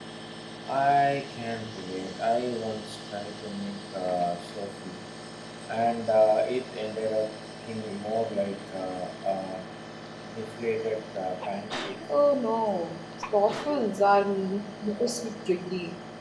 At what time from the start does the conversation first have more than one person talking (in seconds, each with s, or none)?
none